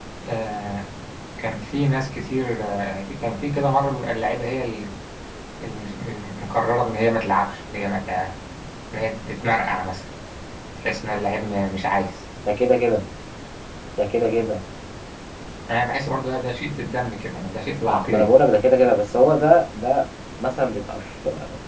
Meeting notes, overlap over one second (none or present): none